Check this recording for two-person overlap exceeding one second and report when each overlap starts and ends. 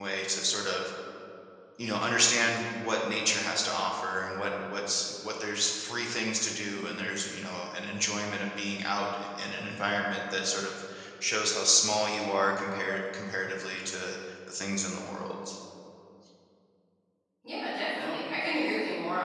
none

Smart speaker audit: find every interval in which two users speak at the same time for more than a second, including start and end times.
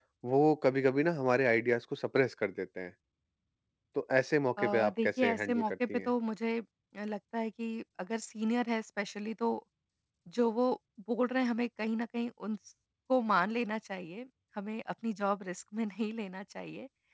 4.6-6.1

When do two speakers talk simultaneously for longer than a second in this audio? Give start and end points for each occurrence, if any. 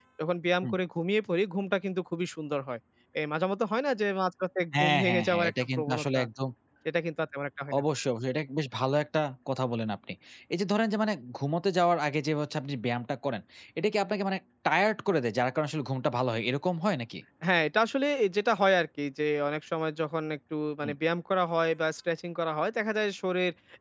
4.8-6.2

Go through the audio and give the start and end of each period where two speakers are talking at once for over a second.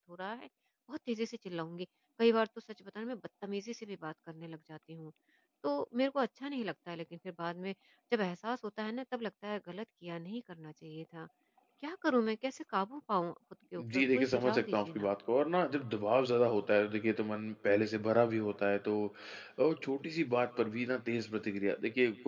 13.8-15.1

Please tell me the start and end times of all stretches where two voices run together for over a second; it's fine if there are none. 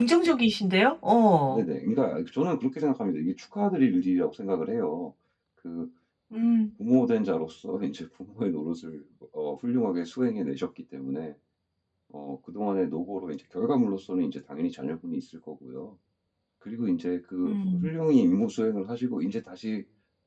none

